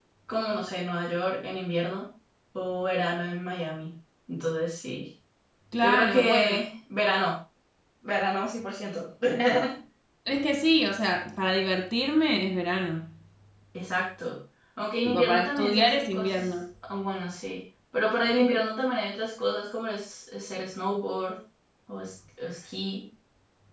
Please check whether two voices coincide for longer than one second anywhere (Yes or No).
Yes